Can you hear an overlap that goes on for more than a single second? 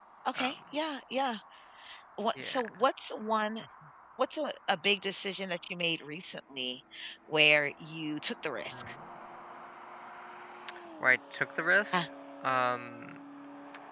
No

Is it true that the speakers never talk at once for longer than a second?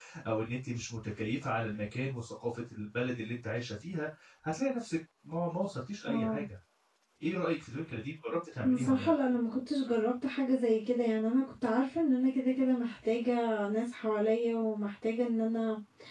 Yes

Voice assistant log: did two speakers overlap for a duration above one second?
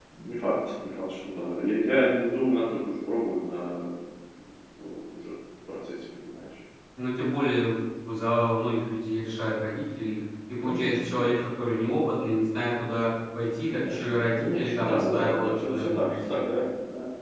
Yes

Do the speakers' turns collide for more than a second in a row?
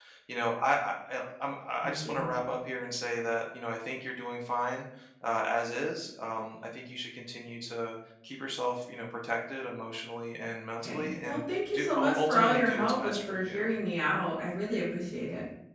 Yes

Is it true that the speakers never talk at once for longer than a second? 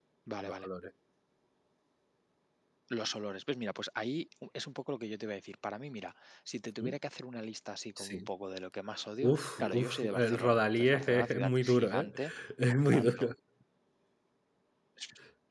No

